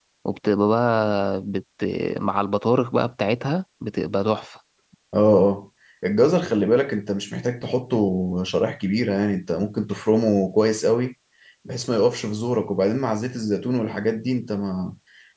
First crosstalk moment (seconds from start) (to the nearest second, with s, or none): none